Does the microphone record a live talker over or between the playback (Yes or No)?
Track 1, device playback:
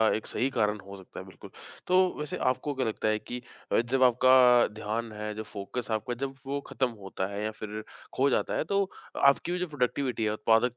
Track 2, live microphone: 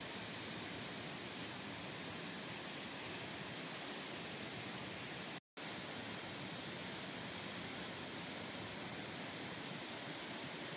No